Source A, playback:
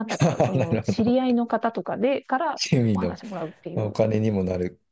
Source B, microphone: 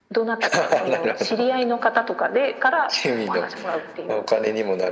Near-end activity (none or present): none